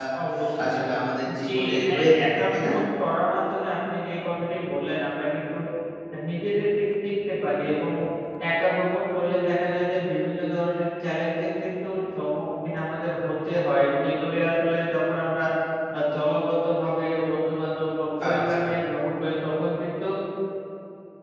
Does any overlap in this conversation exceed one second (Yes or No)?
Yes